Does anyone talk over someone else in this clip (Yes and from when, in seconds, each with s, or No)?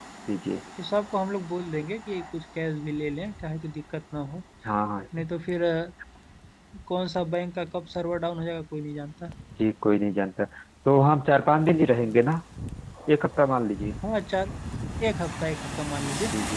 No